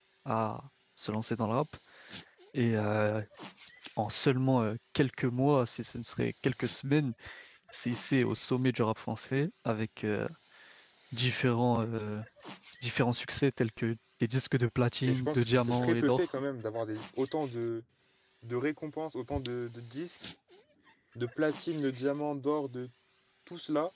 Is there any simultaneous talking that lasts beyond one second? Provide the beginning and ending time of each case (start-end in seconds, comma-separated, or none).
15.0-16.3